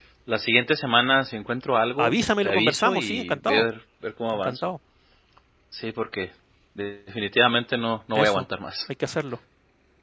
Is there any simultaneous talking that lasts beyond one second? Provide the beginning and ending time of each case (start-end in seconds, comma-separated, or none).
2.0-3.6